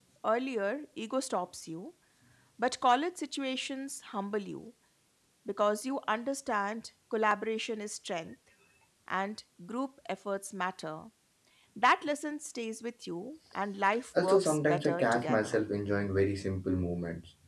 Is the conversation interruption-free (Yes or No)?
No